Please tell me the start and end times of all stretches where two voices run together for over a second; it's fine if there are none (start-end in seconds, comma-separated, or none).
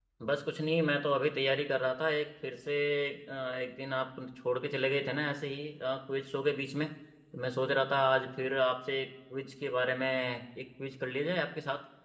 none